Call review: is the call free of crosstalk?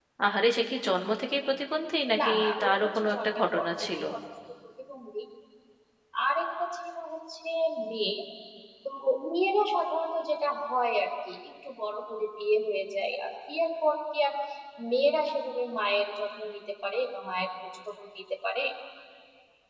No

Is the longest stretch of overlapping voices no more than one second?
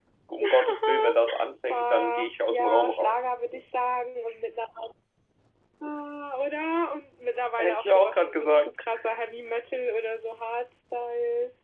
No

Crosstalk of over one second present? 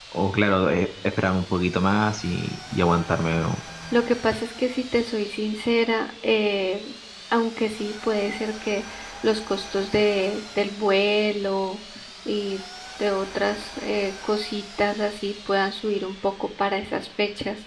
No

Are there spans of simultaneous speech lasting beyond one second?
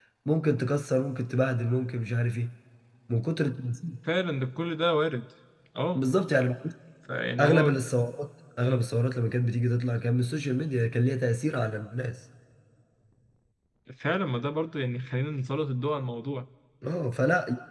No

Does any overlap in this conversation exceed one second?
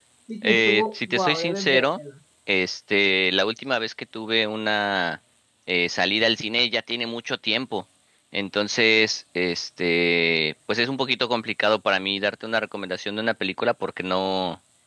Yes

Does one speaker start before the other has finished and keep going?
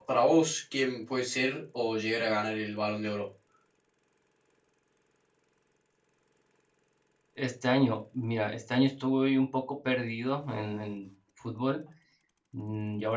No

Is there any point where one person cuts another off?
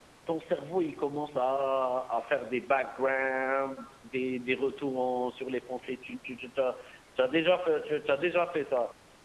No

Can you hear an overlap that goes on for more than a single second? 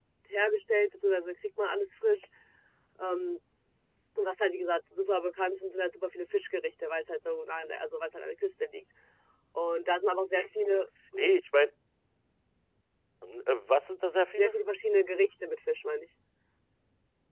No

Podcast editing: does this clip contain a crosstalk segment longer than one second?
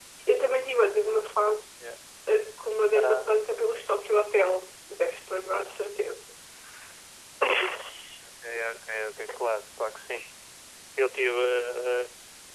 No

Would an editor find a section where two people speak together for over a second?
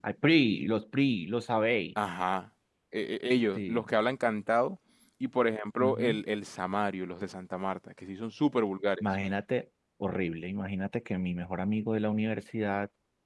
No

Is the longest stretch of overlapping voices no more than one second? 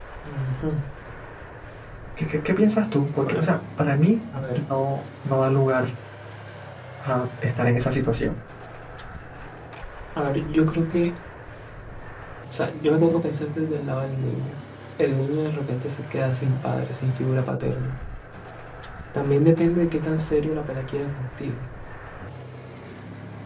Yes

